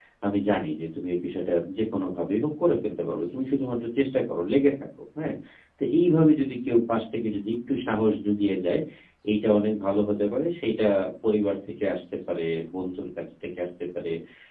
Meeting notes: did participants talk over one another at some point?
No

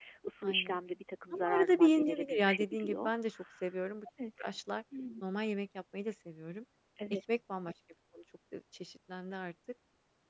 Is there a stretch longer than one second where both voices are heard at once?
Yes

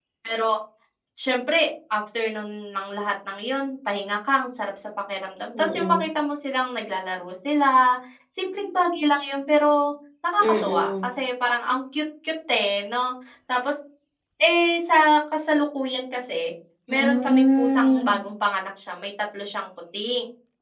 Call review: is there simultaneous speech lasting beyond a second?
Yes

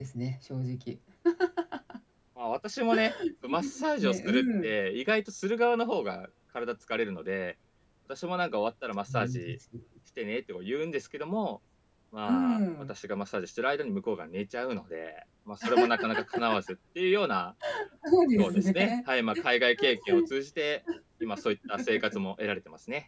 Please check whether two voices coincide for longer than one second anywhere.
Yes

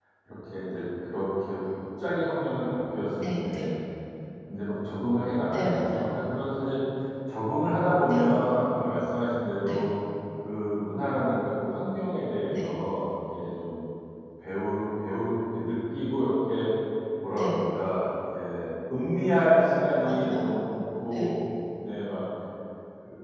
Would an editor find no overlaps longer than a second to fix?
Yes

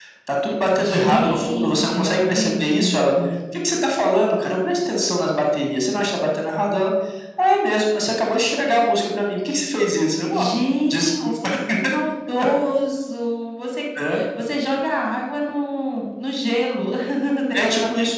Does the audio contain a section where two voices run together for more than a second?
Yes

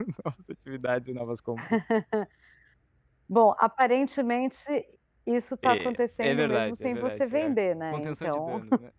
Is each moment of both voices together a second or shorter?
No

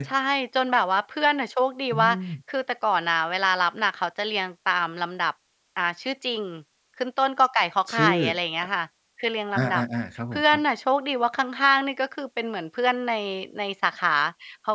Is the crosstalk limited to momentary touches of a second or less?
Yes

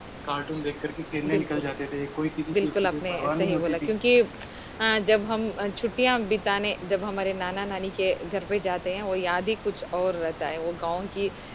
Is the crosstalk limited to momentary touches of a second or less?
No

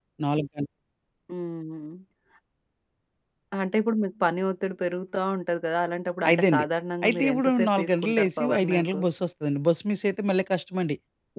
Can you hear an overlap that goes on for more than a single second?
Yes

